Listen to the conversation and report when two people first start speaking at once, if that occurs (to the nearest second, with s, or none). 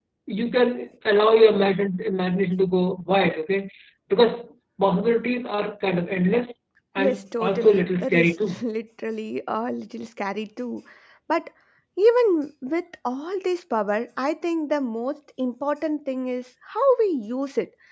7 s